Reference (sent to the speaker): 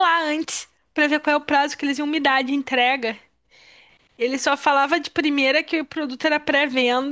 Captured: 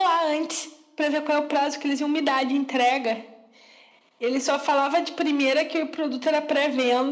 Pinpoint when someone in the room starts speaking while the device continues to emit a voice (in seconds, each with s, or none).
none